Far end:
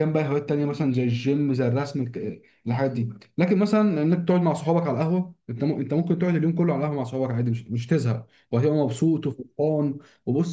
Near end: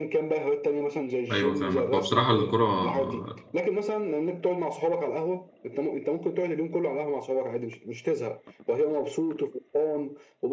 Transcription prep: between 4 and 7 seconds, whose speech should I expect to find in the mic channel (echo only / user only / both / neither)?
echo only